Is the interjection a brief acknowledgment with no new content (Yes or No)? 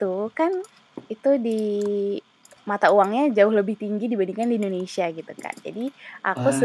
Yes